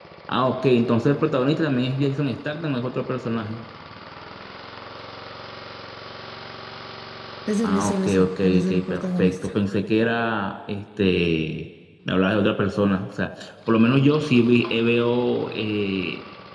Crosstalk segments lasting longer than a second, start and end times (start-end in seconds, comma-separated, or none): 7.6-9.5